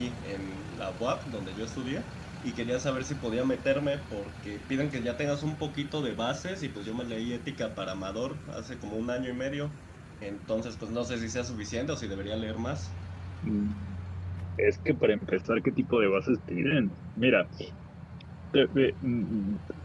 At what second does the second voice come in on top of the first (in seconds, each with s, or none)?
none